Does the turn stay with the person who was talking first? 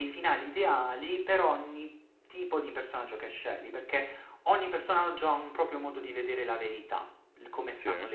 Yes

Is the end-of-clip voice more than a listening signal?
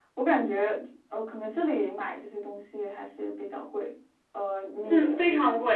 Yes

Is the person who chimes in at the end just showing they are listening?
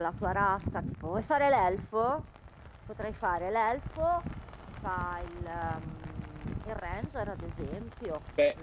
No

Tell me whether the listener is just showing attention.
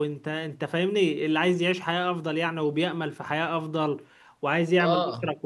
Yes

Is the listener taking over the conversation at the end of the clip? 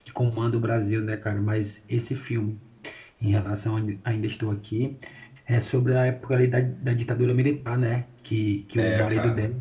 No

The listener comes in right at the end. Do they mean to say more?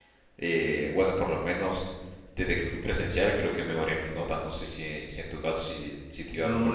Yes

